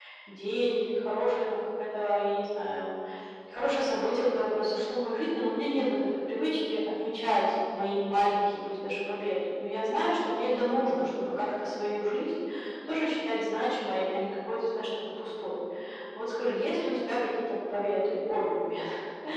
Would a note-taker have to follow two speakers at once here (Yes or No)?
No